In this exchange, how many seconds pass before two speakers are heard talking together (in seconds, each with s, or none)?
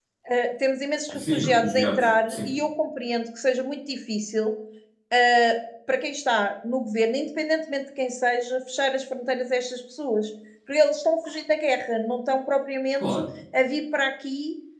1.1 s